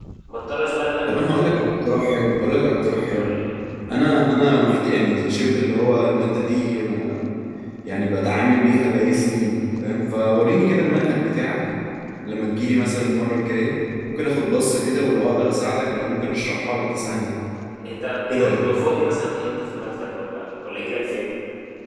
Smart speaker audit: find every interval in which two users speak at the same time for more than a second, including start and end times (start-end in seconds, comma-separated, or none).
none